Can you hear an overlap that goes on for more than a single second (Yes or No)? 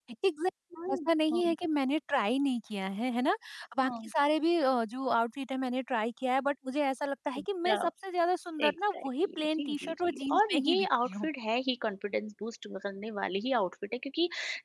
Yes